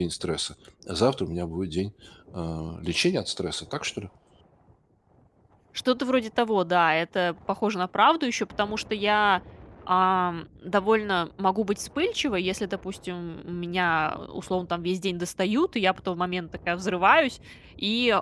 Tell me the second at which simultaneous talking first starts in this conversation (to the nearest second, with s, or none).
none